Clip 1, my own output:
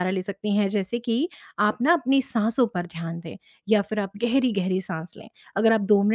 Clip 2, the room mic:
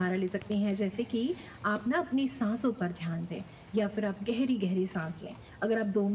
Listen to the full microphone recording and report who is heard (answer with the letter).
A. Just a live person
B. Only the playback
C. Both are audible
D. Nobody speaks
B